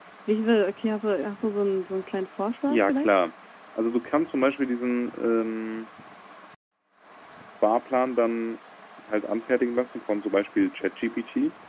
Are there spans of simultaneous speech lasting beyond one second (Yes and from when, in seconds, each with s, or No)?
No